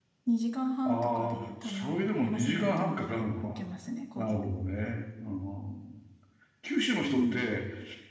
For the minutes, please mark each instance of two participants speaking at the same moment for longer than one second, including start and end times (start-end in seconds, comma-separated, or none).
0.8-3.6